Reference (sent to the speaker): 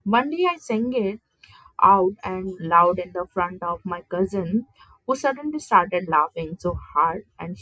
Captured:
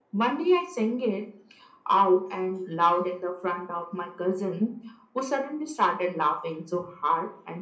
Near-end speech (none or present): none